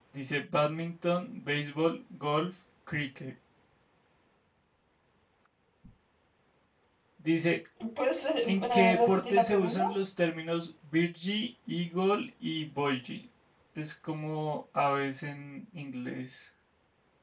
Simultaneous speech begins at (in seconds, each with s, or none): 8.4 s